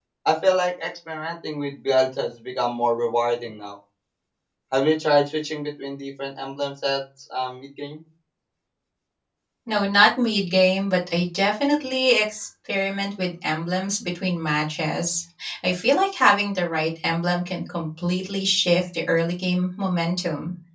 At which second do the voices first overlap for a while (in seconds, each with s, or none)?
none